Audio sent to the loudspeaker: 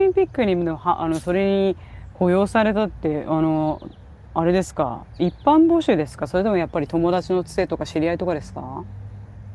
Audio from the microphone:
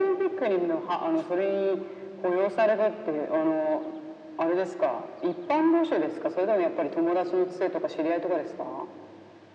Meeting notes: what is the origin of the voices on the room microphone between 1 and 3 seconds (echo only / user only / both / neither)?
echo only